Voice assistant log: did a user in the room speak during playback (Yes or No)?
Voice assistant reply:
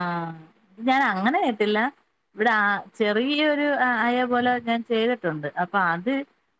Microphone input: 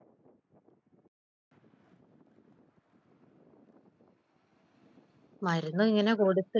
Yes